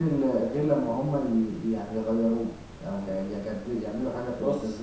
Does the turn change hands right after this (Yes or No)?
Yes